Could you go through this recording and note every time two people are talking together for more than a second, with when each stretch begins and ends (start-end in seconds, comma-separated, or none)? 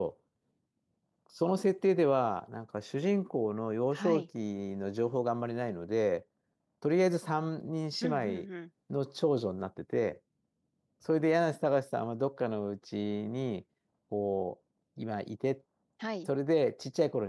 none